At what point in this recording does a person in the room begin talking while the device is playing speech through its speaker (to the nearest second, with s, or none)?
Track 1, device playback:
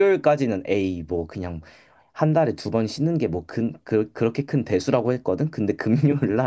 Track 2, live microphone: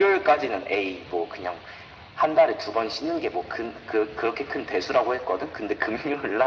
none